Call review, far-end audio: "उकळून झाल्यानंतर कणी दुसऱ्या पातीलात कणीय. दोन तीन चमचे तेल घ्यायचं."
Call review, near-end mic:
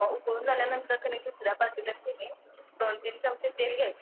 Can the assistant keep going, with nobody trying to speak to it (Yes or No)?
Yes